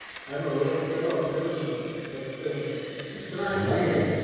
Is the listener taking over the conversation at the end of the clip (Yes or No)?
No